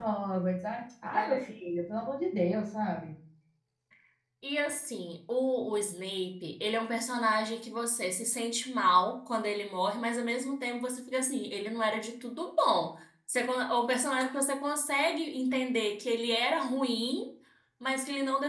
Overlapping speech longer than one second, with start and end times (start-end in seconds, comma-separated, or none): none